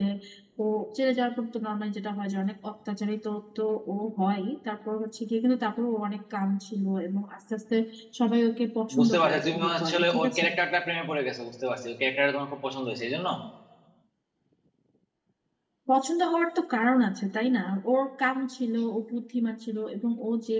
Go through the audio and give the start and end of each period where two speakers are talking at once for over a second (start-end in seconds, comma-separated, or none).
9.0-10.4